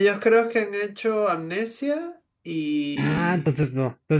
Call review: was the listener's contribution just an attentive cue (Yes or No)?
No